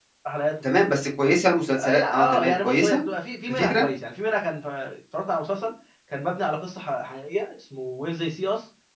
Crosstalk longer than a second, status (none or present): present